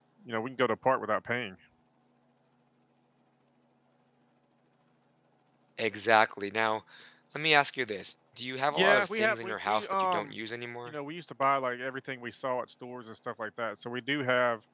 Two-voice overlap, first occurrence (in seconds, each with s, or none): 8.7 s